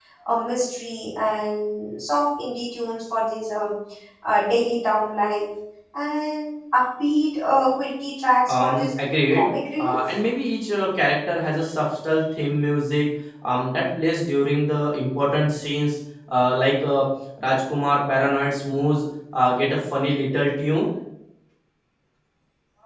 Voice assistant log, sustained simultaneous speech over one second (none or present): none